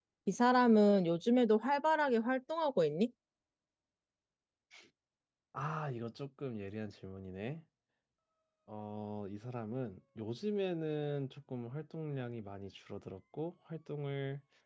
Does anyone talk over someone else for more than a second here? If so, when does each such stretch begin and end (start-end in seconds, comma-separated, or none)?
none